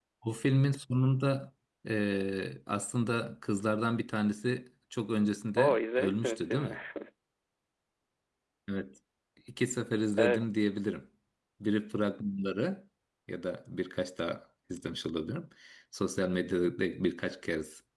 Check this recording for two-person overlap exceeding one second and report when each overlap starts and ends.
5.6-6.8

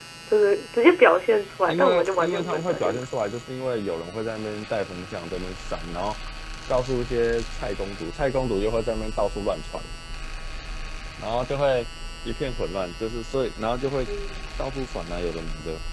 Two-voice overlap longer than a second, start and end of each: 1.7-3.0

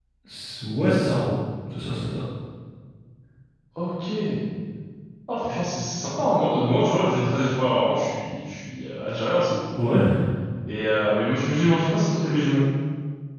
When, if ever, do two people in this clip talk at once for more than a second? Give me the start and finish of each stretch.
none

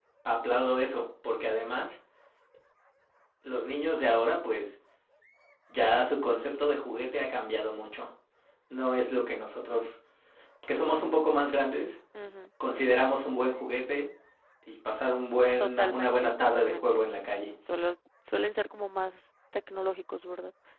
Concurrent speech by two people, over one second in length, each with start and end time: 15.6-17.1

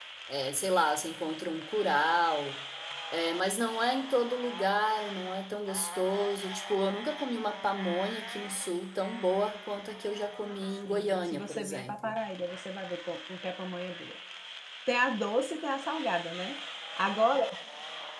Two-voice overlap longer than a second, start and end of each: 10.8-12.2

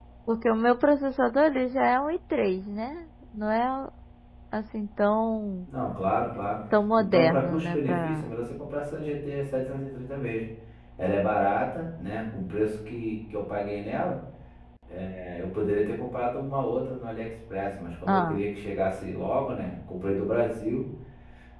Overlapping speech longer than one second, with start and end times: 7.0-8.3

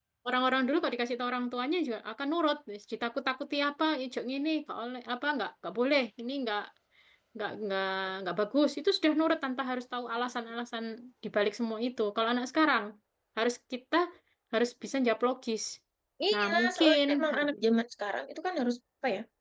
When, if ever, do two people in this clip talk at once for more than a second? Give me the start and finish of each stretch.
16.3-17.6

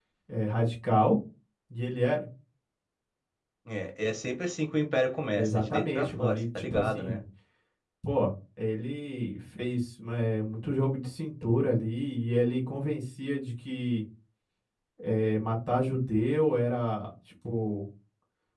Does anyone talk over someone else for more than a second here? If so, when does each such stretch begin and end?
5.4-7.2

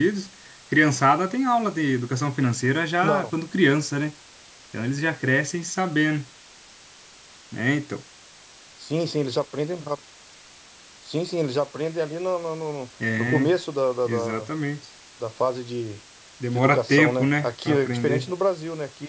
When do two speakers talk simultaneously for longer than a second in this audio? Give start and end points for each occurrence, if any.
16.6-18.3

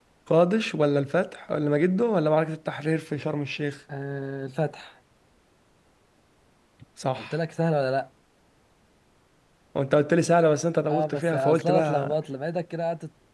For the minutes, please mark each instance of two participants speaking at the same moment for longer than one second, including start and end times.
10.9-12.2

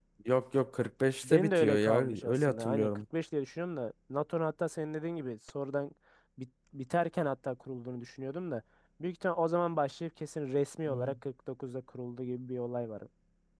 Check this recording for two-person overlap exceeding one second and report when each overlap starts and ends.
1.2-3.0

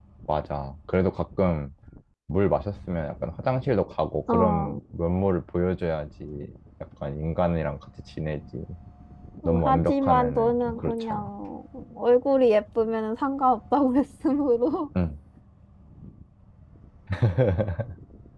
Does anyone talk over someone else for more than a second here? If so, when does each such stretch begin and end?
9.4-11.3

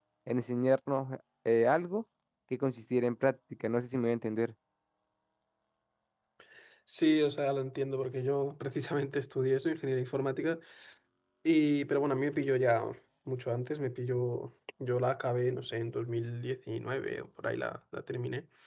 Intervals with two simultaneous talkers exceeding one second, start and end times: none

